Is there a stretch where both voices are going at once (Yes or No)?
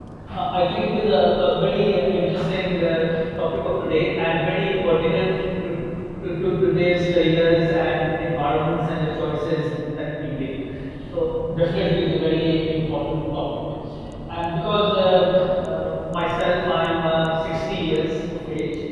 No